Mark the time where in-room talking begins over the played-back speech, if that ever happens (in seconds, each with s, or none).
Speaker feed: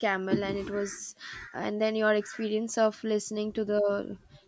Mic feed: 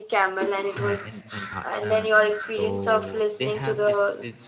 0.8 s